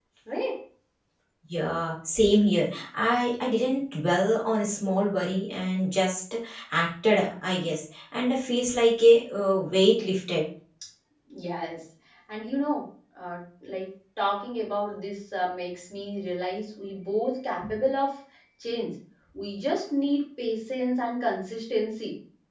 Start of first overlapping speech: none

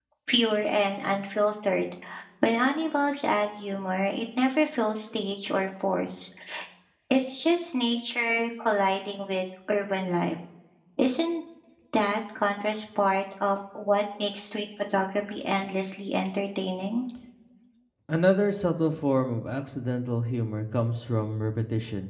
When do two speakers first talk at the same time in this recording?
none

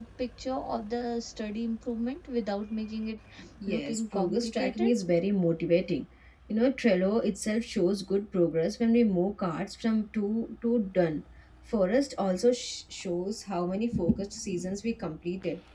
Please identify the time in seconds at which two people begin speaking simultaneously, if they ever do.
3.7 s

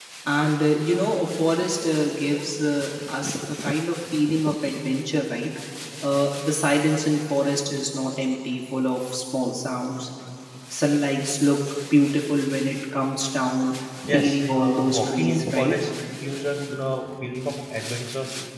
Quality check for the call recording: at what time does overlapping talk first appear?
14.1 s

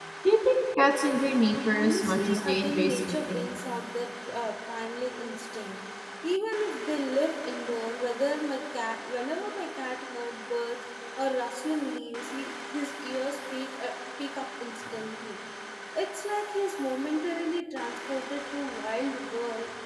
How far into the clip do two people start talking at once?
1.8 s

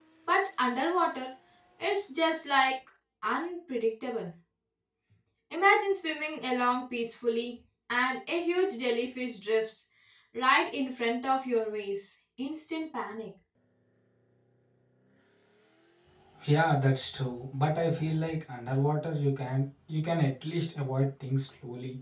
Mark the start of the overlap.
none

